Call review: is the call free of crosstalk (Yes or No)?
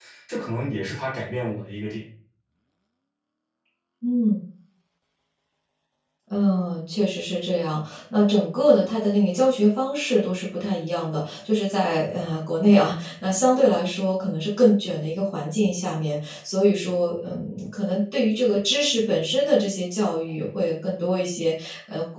Yes